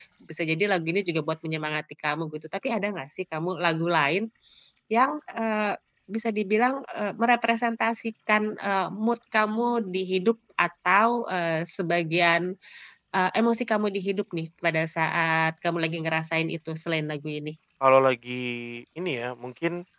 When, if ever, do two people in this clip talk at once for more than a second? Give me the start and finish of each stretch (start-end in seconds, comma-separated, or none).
none